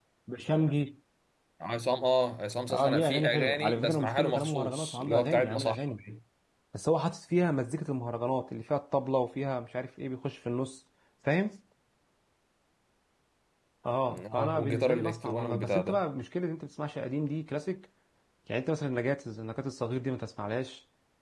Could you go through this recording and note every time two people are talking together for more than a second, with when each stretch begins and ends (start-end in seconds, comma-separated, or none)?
2.7-5.8, 14.1-16.0